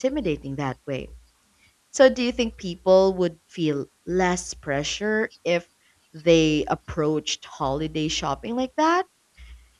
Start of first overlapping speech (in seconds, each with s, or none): none